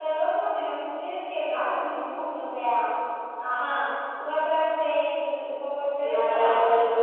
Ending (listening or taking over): taking over